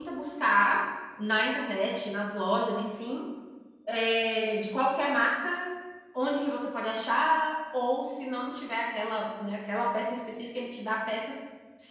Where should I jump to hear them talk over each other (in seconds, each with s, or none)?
none